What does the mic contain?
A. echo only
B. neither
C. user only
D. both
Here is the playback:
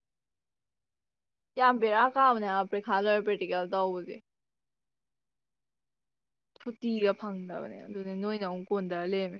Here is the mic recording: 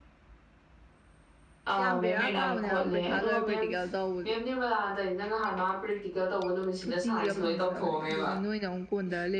D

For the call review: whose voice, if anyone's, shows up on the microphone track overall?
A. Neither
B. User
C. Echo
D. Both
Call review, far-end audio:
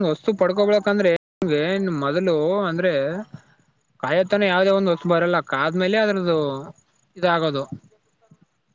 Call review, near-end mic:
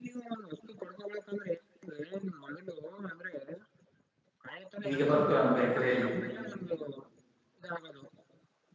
D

